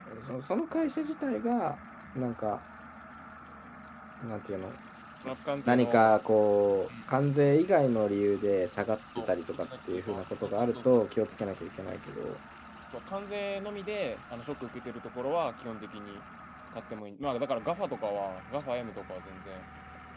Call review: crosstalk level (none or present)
present